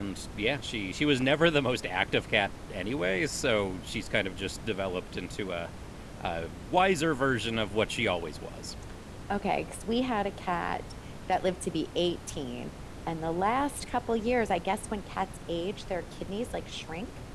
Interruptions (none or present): none